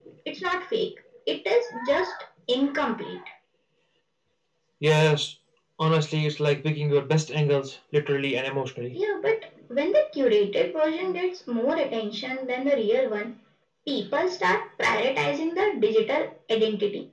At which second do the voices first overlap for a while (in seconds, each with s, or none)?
none